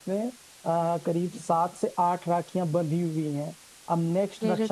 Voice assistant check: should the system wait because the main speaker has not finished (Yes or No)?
Yes